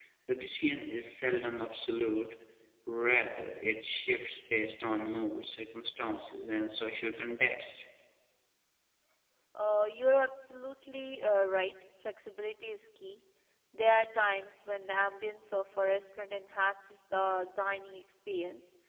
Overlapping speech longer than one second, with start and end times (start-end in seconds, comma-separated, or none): none